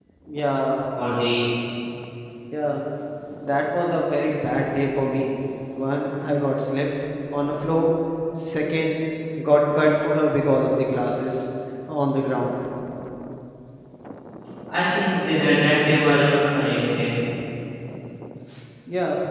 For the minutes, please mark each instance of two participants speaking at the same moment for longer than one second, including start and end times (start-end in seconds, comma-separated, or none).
none